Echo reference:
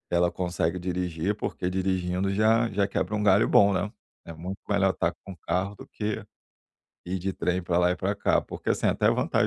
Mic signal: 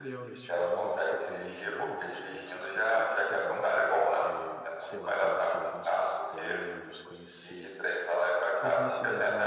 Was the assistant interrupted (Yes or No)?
Yes